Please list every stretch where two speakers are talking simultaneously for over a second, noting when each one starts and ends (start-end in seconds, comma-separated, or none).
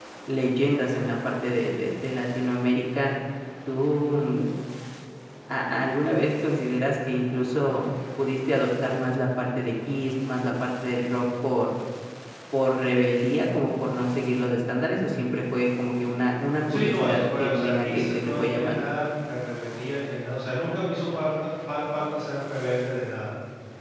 16.7-18.9